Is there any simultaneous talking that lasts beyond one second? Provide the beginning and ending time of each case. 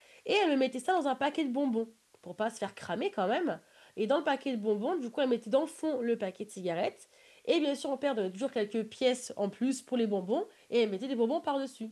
none

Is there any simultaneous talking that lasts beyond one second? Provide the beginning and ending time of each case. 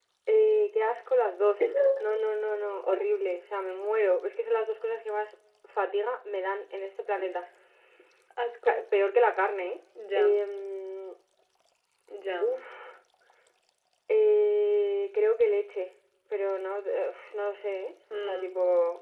none

